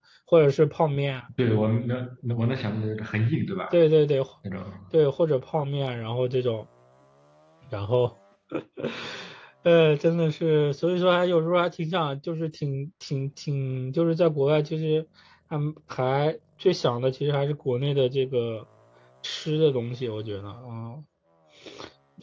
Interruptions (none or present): none